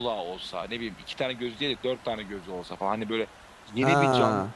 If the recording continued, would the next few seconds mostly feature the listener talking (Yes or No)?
No